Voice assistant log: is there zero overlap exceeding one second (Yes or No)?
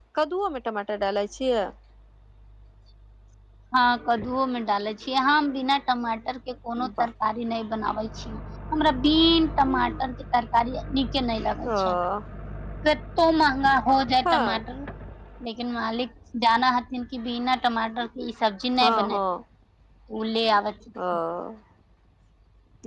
Yes